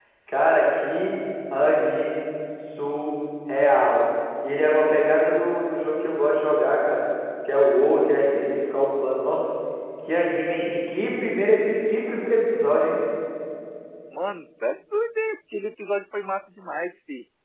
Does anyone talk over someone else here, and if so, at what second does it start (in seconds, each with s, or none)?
none